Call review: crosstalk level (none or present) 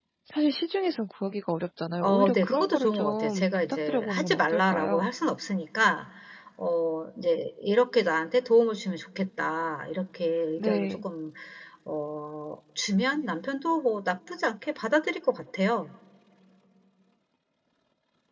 present